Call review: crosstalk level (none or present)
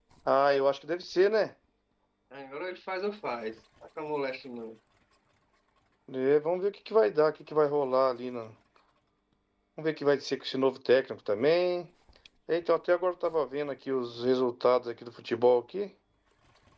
none